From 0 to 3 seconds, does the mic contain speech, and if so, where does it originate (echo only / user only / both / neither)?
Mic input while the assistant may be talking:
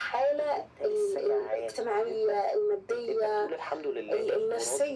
echo only